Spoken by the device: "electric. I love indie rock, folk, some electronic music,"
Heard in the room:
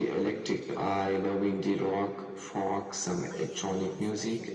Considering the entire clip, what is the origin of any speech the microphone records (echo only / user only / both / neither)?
both